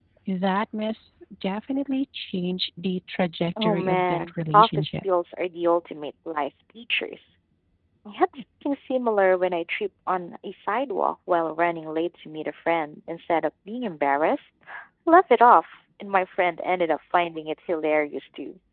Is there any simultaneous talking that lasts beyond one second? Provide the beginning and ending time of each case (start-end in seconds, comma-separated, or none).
3.6-4.9